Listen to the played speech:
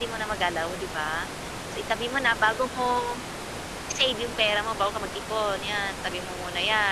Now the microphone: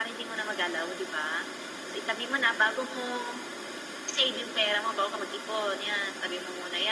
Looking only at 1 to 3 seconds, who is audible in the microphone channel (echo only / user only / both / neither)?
echo only